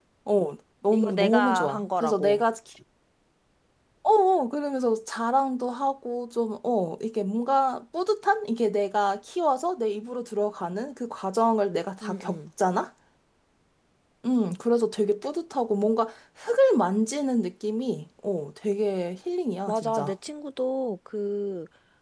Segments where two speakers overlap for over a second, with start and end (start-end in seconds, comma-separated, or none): 0.9-2.4